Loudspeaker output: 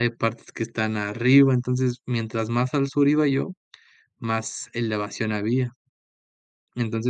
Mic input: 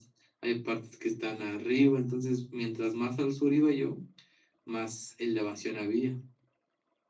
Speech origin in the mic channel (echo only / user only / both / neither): echo only